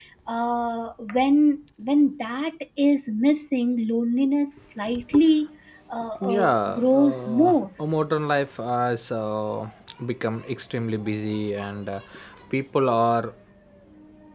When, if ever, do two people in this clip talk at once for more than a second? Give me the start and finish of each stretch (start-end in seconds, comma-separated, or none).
6.2-7.6